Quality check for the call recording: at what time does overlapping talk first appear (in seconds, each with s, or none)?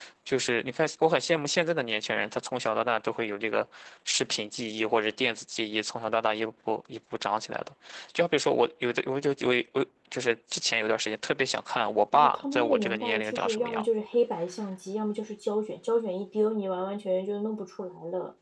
12.1 s